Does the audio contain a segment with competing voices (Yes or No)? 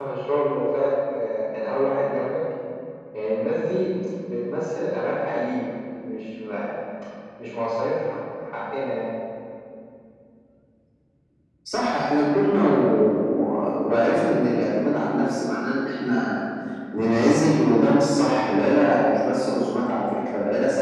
No